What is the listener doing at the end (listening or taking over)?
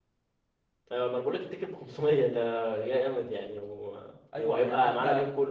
taking over